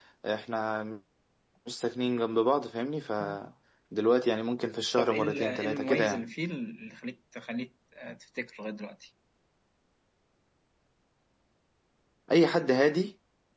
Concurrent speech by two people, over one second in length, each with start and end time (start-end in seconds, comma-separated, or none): 5.0-6.3